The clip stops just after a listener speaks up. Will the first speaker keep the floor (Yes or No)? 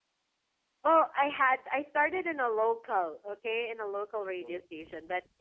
Yes